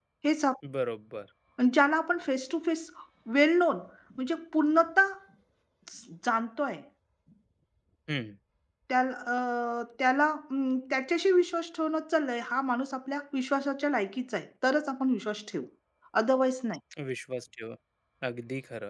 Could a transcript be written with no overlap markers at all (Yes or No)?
Yes